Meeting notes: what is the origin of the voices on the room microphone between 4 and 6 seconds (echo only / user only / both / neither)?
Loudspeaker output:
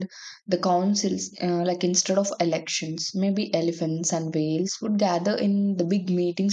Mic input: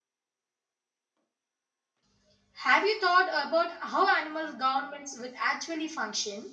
user only